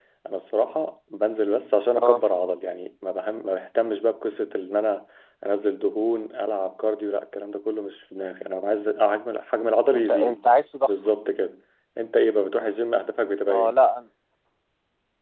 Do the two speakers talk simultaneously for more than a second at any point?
No

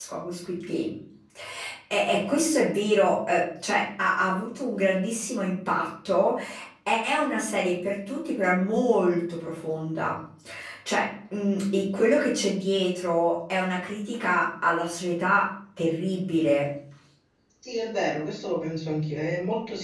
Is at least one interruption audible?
No

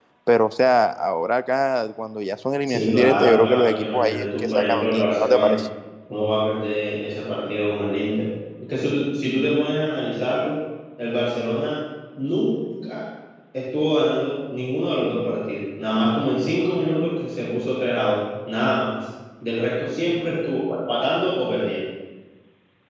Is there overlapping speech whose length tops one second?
Yes, from 2.7 s

